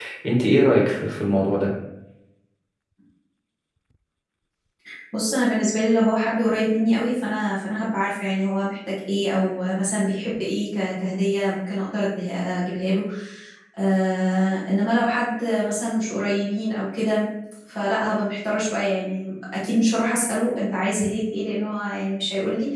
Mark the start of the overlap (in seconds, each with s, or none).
none